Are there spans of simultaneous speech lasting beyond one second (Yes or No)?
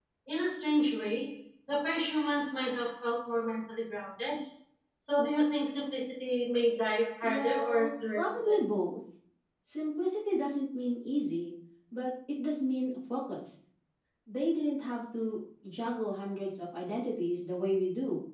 Yes